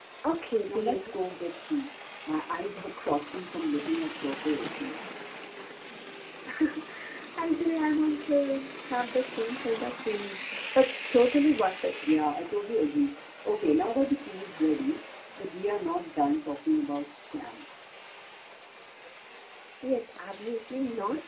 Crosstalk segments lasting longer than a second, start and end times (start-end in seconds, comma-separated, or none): none